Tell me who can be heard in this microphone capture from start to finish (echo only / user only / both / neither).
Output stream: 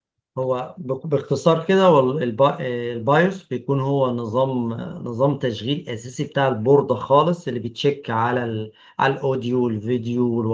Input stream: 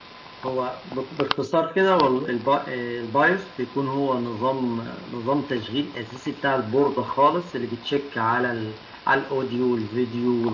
echo only